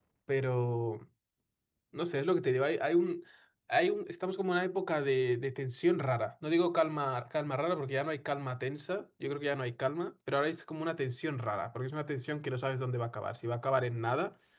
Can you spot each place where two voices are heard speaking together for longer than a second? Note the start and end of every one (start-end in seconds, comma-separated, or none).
none